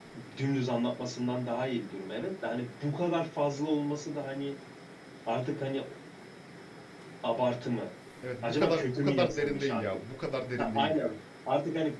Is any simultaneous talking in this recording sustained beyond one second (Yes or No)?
Yes